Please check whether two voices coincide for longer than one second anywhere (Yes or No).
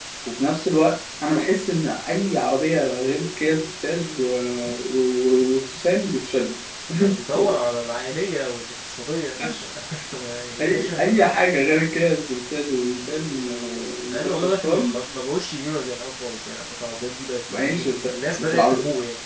Yes